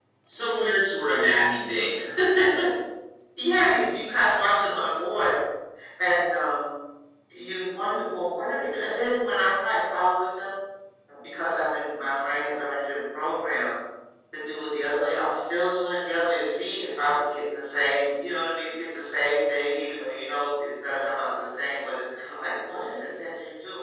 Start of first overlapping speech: none

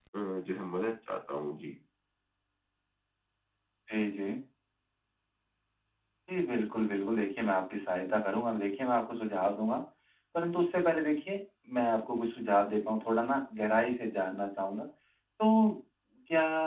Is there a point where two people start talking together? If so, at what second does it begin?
none

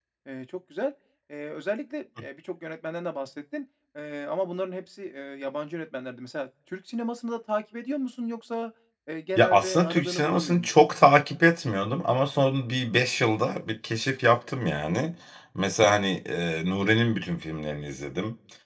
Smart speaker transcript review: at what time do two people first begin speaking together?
9.3 s

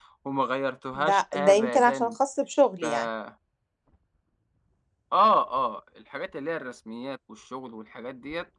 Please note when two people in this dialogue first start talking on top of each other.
1.0 s

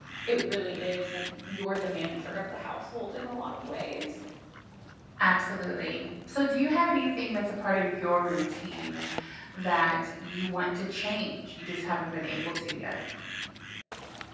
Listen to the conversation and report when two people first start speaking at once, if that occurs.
none

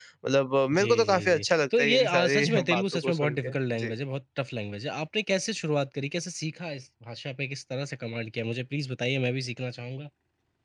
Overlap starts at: 0.7 s

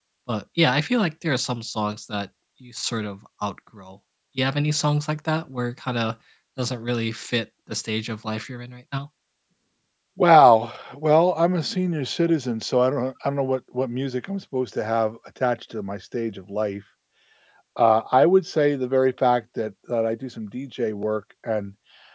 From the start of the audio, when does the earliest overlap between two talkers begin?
none

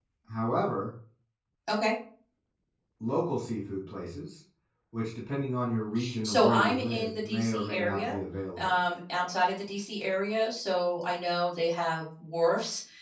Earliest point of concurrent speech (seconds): 6.2 s

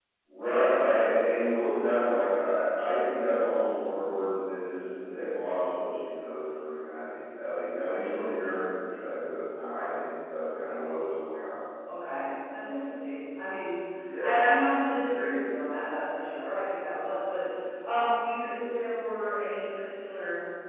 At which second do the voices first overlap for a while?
none

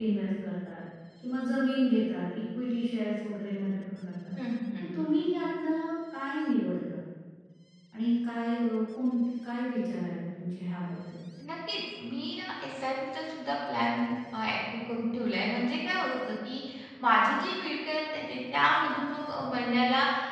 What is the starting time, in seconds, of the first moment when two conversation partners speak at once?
none

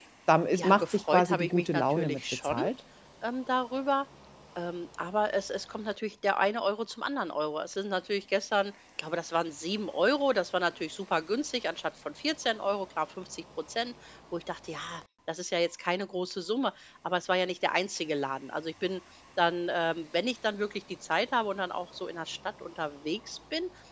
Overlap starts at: 0.6 s

